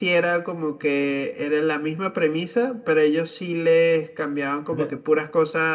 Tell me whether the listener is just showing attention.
Yes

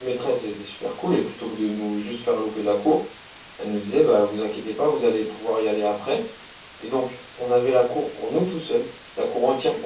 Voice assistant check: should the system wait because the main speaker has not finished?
Yes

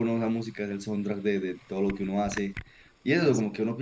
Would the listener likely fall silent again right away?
Yes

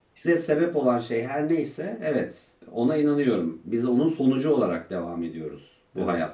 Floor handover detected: No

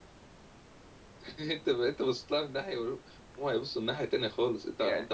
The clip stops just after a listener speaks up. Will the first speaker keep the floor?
Yes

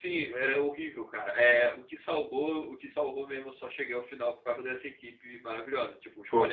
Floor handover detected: No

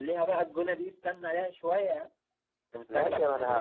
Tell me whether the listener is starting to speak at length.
Yes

